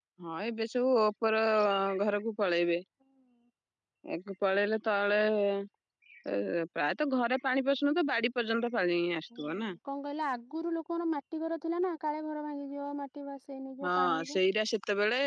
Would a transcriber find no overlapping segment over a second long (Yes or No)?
Yes